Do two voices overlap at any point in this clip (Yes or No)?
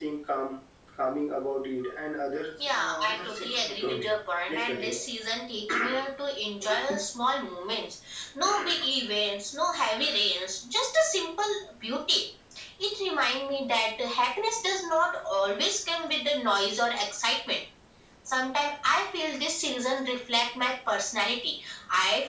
Yes